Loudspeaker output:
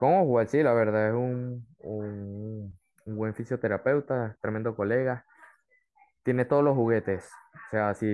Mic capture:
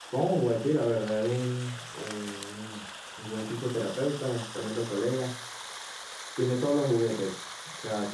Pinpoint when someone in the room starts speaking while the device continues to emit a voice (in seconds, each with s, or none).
none